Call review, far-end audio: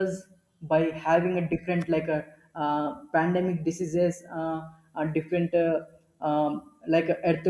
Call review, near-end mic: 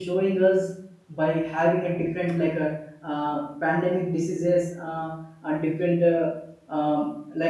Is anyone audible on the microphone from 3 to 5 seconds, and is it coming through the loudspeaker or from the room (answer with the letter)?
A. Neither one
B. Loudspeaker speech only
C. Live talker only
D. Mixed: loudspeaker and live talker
B